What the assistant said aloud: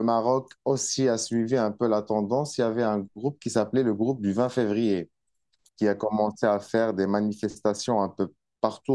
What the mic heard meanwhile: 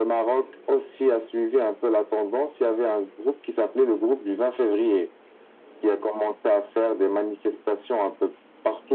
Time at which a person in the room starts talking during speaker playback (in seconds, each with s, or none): none